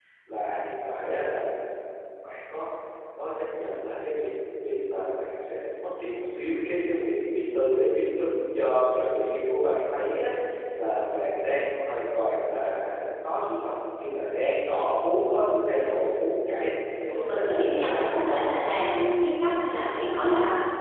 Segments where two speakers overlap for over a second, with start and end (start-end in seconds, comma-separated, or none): 17.1-18.4